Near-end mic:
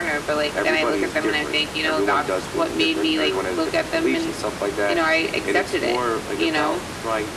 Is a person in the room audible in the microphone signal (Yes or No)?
No